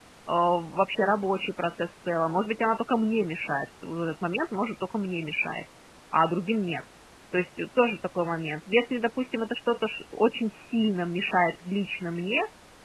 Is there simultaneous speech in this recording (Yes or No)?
No